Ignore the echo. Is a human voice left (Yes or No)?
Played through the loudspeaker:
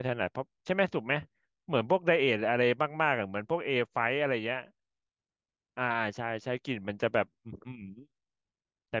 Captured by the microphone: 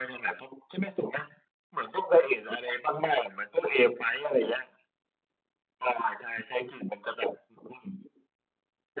No